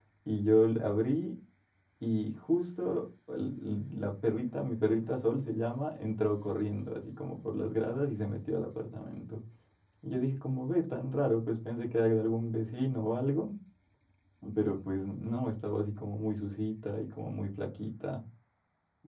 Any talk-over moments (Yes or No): No